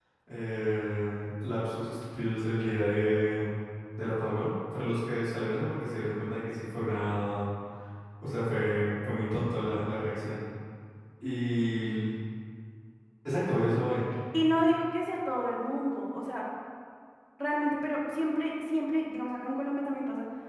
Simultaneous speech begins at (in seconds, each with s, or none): none